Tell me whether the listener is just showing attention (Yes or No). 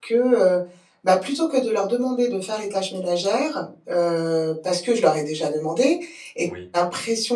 Yes